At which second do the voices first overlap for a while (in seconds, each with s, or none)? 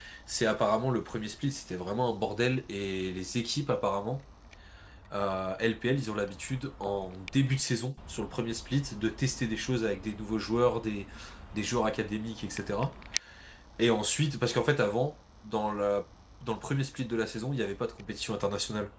none